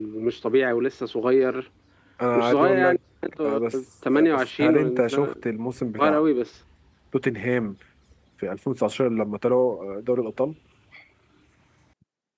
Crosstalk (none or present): present